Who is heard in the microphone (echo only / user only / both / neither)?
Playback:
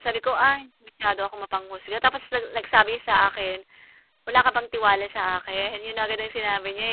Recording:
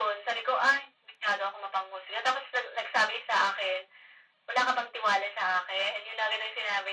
echo only